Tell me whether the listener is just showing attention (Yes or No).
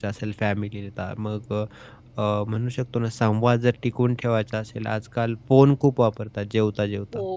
Yes